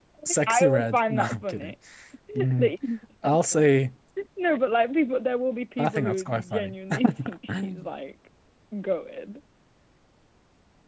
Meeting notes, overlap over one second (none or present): present